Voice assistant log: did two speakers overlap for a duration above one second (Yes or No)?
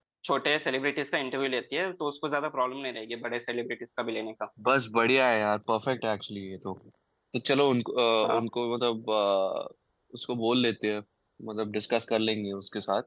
No